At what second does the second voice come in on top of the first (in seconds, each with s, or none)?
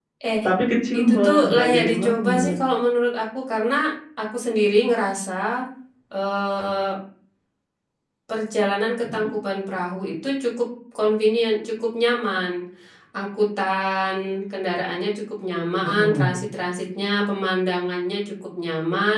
1.0 s